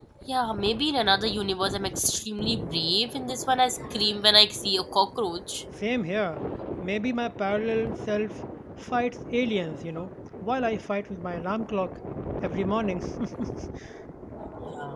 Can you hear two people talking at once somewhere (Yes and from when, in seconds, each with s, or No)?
No